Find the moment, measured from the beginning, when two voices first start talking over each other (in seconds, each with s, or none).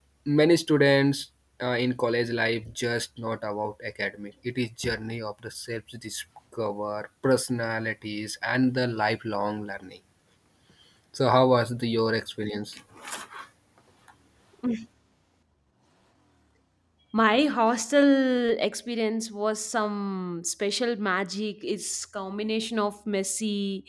none